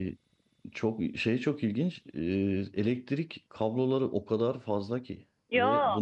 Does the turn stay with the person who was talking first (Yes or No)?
Yes